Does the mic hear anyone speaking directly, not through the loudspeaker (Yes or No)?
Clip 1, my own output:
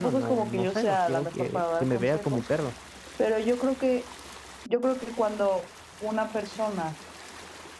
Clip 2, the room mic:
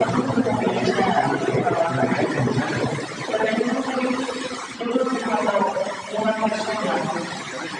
Yes